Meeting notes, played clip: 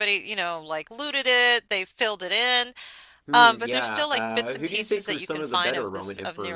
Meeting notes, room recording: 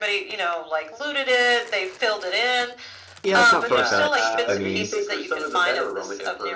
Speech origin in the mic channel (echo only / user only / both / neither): both